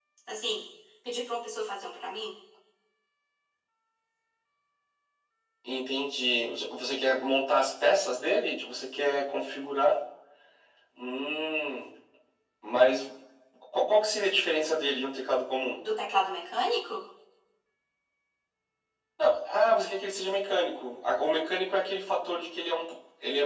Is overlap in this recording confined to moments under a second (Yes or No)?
Yes